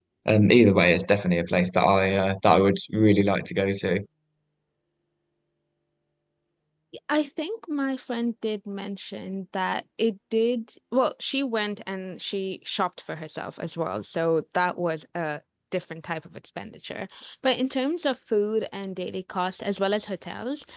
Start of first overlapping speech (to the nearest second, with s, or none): none